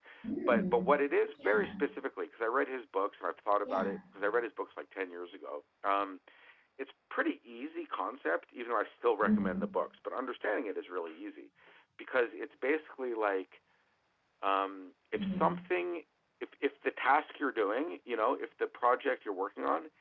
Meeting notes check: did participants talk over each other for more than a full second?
No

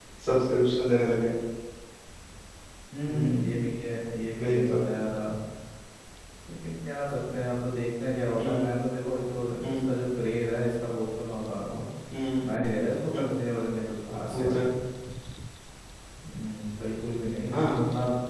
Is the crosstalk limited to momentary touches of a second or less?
Yes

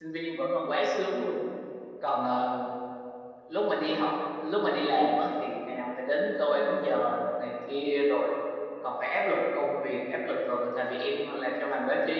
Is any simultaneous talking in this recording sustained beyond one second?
No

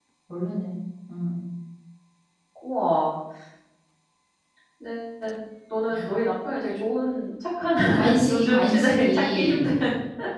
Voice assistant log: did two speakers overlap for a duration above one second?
Yes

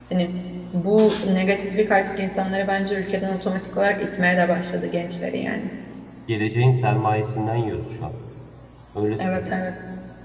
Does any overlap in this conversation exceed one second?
No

